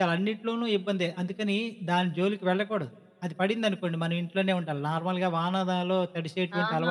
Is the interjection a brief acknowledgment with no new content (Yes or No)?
No